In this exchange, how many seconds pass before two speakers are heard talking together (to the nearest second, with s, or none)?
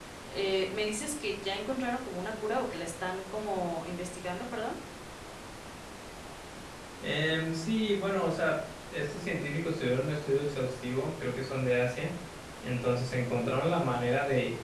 none